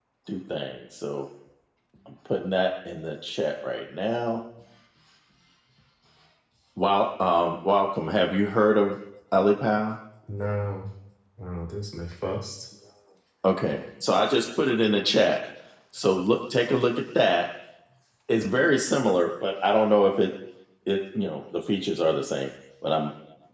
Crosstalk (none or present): none